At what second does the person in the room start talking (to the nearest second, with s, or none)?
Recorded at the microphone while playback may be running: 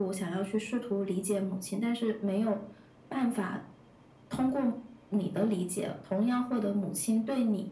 none